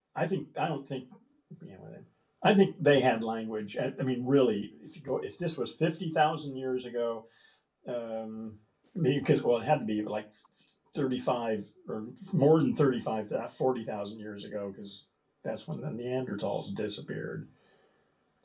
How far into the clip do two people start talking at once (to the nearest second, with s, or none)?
none